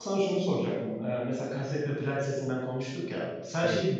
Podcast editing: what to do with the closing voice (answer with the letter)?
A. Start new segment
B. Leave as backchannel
B